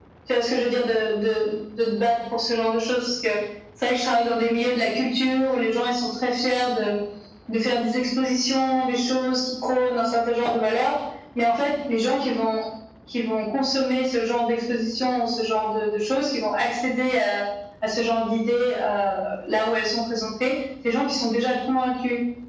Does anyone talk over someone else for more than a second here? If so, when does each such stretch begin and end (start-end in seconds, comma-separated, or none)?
none